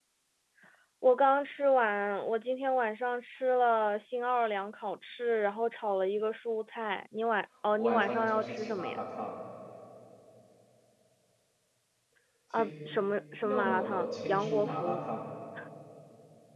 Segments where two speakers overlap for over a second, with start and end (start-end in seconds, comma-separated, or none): 7.8-9.0, 13.4-15.0